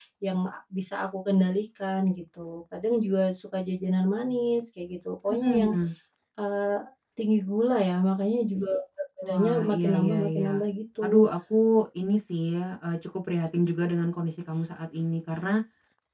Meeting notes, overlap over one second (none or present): present